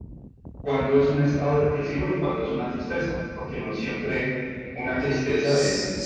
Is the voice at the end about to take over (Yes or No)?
Yes